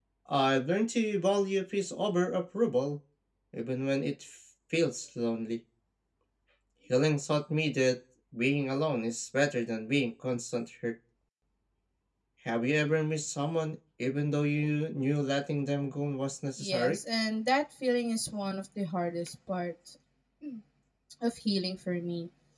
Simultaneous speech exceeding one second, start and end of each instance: none

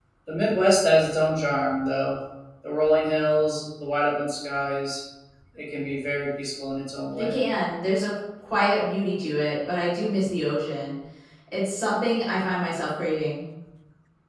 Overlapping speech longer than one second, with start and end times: none

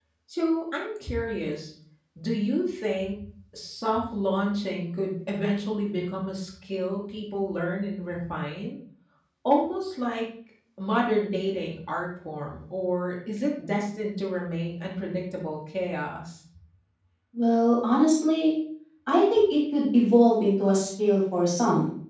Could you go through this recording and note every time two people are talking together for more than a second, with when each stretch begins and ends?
none

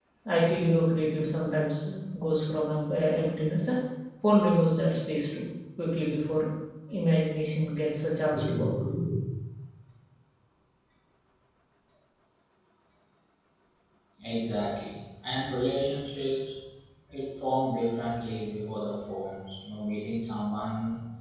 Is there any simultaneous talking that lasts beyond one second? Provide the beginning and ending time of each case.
none

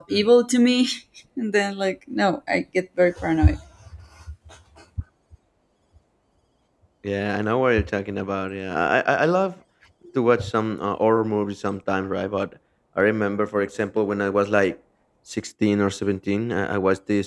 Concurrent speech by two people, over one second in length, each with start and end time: none

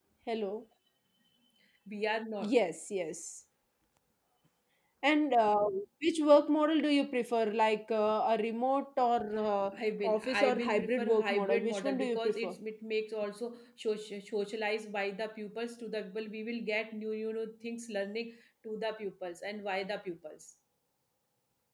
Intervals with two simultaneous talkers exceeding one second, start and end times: 10.0-12.6

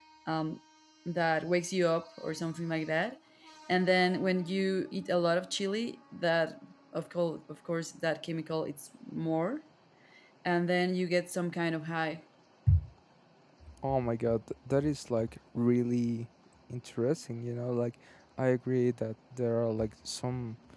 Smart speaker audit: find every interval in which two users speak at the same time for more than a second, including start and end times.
none

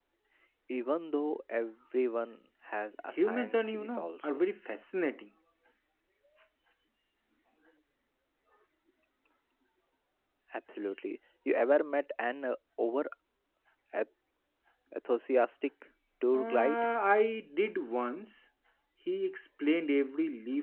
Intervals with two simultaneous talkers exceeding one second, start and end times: 3.2-4.5

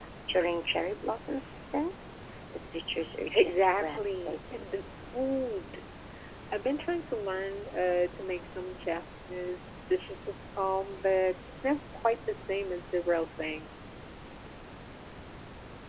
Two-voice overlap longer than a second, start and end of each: 3.3-4.7

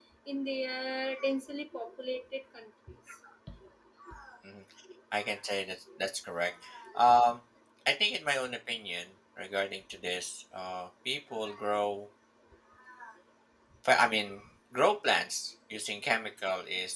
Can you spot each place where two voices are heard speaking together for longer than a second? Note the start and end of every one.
none

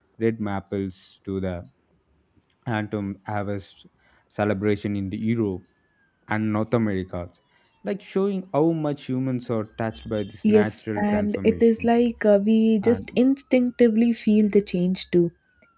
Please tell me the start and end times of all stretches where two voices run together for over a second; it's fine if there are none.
10.4-11.9

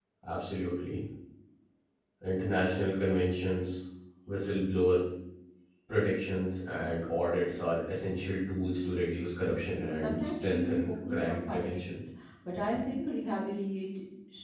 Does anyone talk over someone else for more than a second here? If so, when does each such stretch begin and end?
9.9-12.0

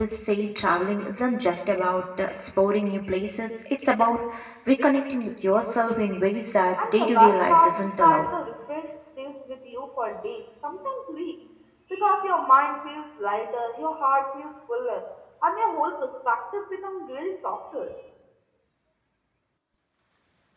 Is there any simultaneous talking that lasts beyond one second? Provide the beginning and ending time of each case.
6.9-8.3

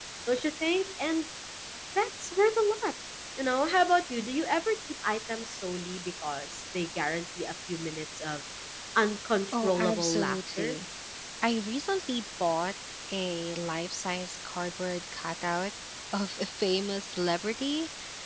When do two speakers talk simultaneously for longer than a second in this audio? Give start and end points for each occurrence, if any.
9.5-10.8

